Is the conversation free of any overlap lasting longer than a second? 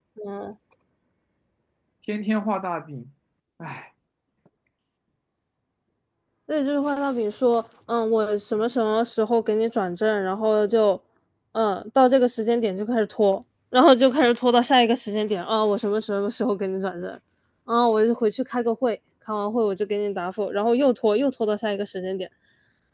Yes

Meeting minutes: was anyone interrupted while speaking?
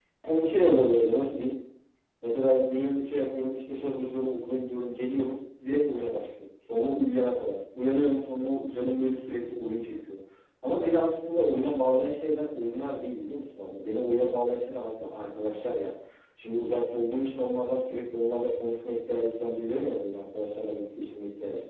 No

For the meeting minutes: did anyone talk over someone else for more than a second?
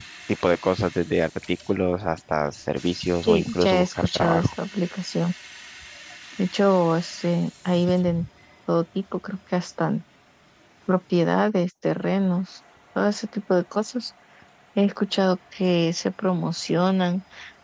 Yes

